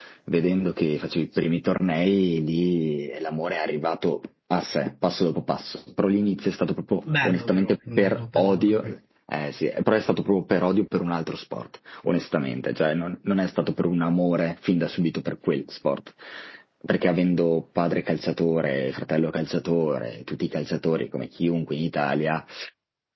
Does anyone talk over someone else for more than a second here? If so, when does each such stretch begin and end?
7.2-8.9

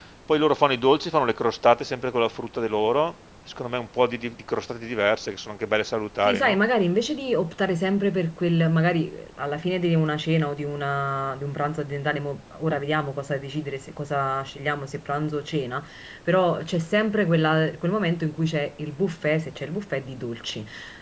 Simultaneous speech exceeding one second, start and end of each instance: none

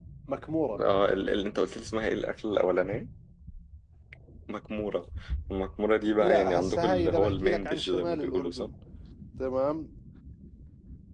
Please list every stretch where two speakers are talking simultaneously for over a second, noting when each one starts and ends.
6.2-8.7

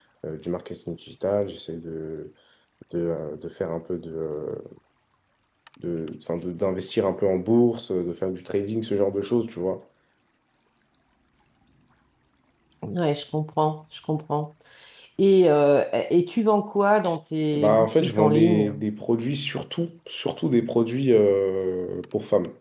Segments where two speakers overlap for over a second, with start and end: 17.5-18.7

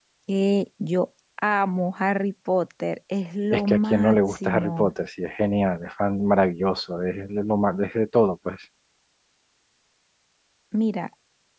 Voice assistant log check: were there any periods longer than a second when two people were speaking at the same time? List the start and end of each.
3.5-4.9

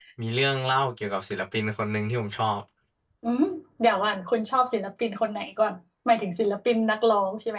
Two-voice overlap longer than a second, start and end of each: none

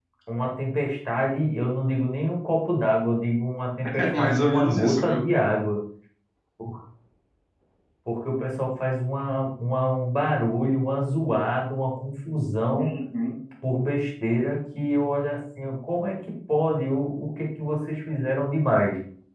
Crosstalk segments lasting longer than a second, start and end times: 4.0-5.2

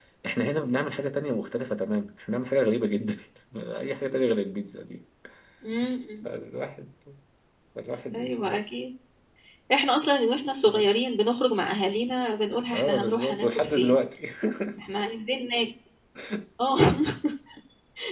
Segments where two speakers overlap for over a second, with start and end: 12.7-14.0

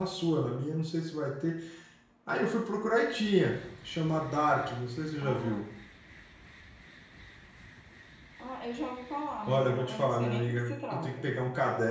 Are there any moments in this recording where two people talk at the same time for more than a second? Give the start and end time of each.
9.5-11.3

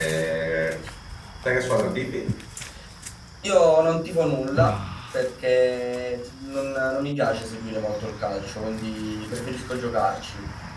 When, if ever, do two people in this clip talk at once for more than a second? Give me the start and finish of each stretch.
none

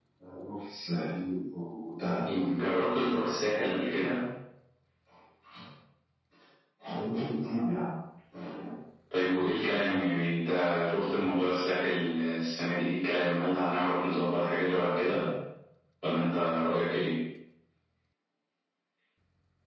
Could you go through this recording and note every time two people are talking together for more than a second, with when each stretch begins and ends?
none

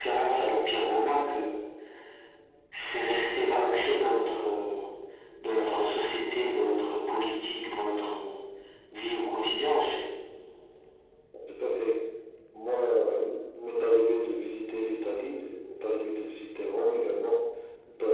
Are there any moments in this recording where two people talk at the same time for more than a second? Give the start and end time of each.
none

